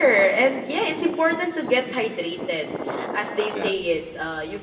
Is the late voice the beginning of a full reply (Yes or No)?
No